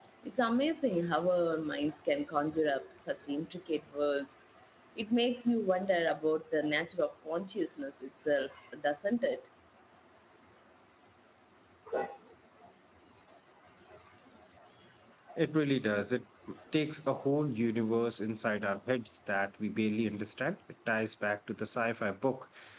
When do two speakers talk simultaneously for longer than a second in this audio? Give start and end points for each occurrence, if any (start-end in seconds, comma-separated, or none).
none